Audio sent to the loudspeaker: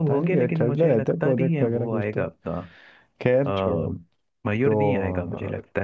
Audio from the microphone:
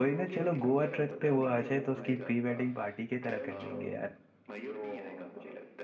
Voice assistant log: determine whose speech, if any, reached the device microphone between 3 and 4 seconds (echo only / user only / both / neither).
both